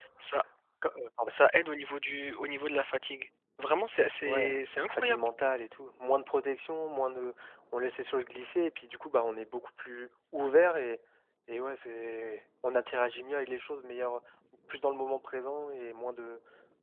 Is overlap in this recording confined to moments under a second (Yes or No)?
Yes